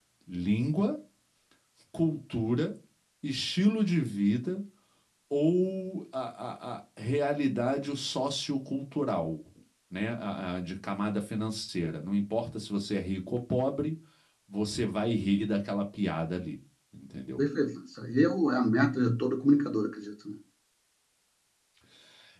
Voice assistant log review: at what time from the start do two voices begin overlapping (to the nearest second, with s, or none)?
none